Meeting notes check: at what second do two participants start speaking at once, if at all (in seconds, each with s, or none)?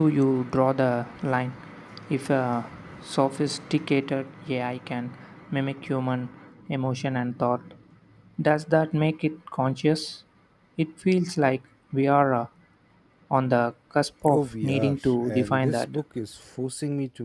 14.2 s